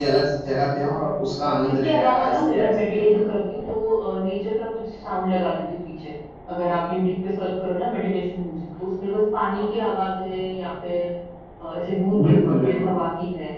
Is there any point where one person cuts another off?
Yes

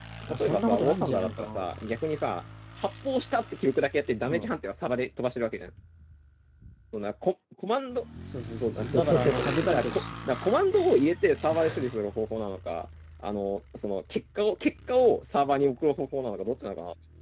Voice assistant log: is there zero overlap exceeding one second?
No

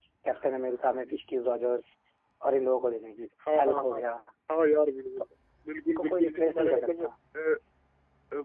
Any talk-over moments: Yes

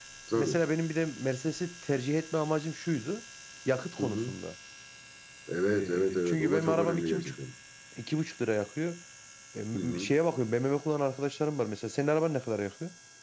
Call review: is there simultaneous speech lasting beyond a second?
Yes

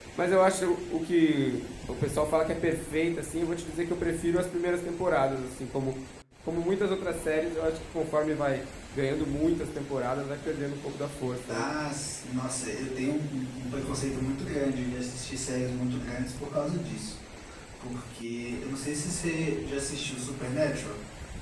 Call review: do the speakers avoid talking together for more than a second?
Yes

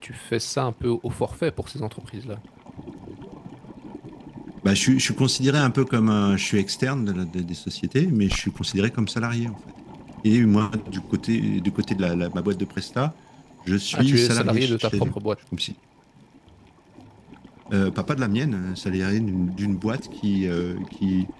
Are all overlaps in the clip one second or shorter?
No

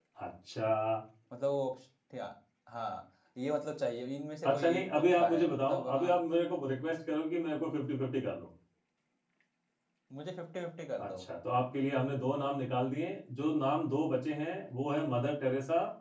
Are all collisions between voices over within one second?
No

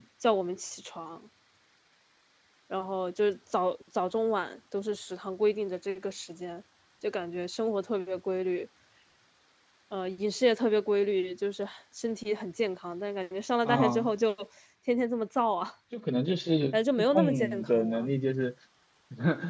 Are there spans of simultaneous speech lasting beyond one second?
Yes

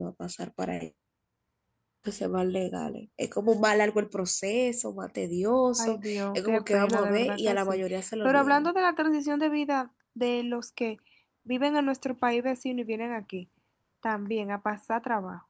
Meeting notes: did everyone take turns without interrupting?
No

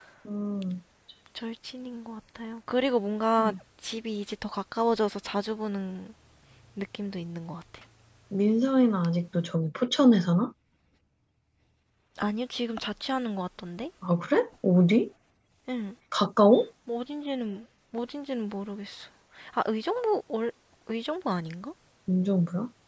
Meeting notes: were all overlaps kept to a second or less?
Yes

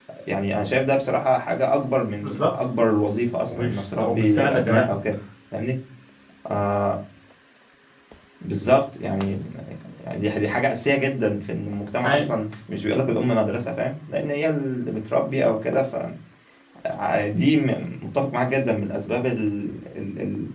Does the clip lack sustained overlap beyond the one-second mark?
No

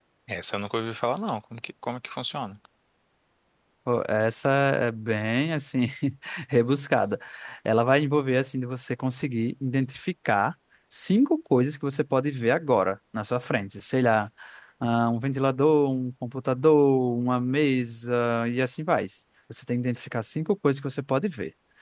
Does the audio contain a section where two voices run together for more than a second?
No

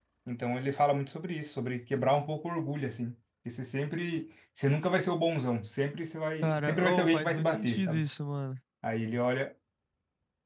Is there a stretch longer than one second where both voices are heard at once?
Yes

